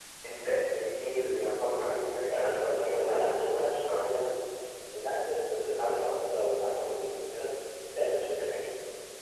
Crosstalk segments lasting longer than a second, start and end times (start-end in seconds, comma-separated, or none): 2.3-4.1